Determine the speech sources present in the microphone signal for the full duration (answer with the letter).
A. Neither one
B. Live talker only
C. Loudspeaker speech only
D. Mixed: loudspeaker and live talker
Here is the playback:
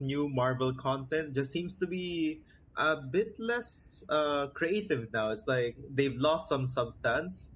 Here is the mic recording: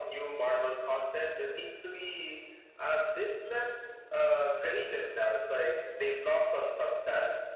C